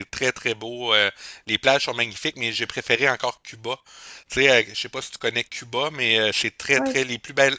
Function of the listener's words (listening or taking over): listening